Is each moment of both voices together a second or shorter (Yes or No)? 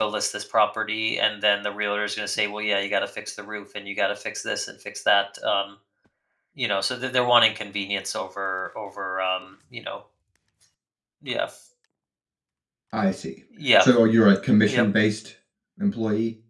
Yes